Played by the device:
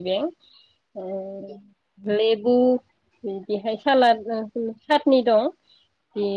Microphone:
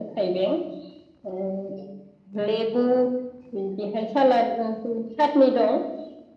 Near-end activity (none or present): none